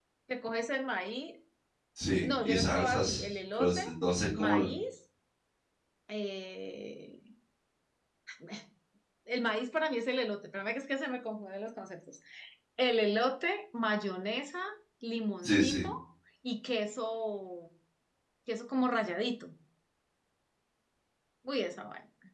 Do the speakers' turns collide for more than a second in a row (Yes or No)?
Yes